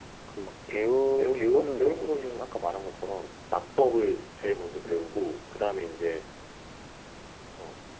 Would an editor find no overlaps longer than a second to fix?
No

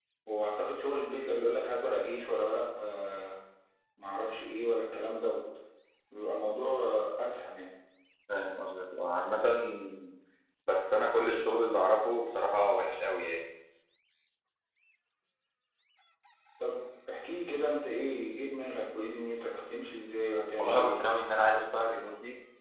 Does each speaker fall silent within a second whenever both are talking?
Yes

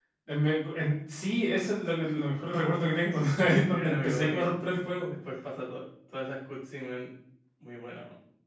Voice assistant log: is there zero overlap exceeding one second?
No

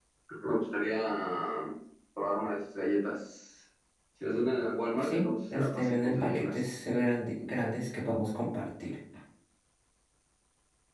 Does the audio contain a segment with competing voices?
Yes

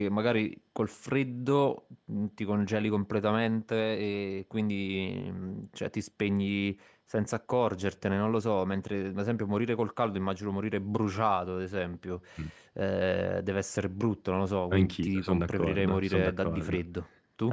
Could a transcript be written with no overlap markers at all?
No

